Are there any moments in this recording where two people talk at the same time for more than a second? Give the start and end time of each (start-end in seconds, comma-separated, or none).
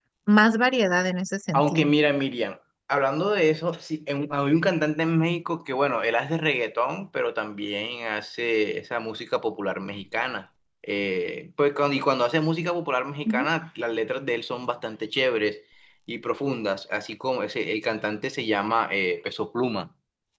none